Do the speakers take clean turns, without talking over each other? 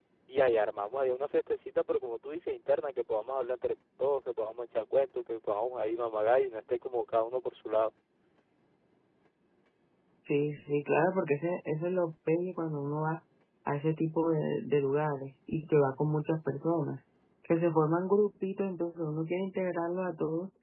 Yes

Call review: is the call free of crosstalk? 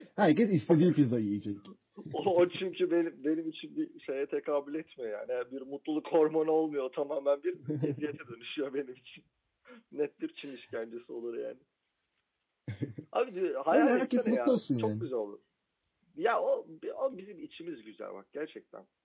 No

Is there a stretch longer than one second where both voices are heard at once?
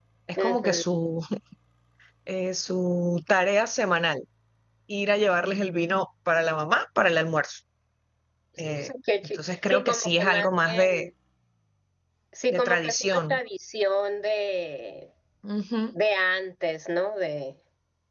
Yes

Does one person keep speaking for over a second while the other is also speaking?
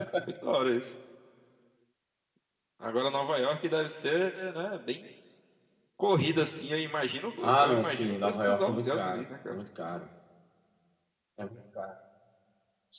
Yes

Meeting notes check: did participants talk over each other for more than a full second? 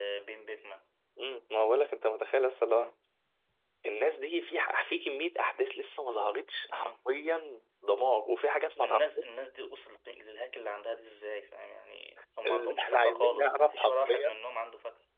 Yes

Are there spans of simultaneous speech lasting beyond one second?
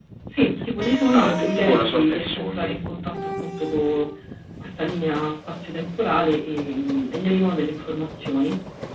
Yes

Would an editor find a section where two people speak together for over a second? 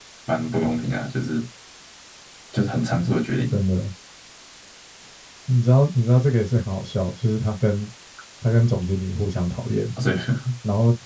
No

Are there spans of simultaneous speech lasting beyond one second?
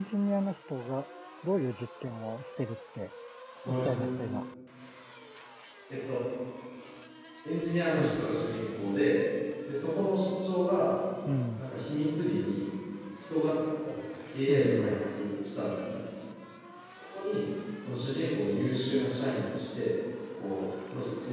No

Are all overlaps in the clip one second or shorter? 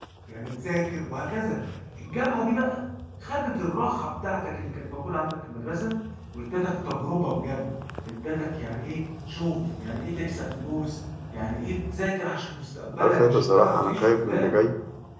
No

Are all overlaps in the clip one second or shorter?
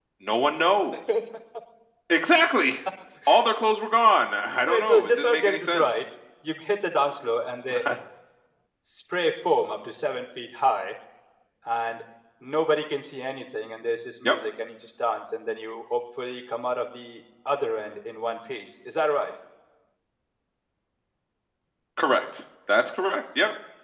No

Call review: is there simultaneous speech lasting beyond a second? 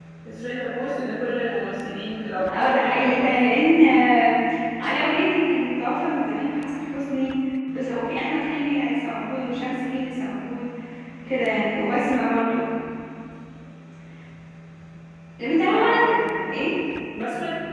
Yes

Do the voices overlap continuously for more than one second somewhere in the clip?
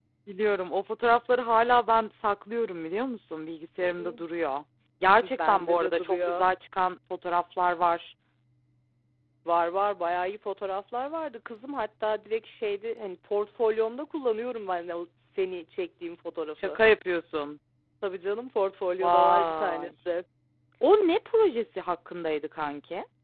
Yes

